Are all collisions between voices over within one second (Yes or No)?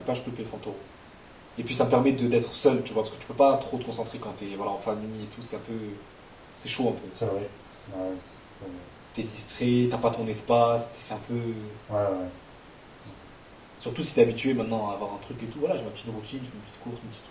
Yes